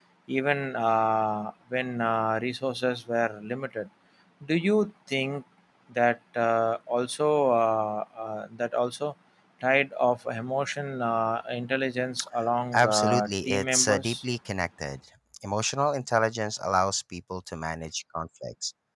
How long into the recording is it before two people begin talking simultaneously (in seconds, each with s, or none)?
12.7 s